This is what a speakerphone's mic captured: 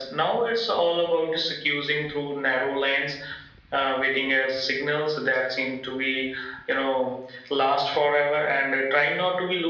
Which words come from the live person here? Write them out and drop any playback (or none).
none